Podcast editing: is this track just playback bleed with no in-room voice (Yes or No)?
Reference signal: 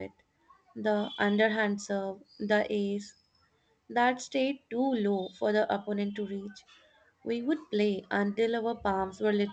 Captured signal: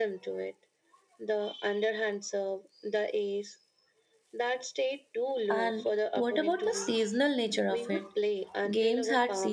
No